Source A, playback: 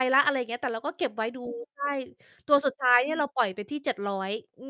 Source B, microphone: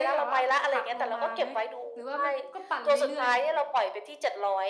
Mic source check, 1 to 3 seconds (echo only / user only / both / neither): both